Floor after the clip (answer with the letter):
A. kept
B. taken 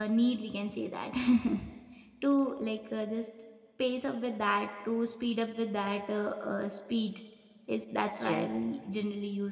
A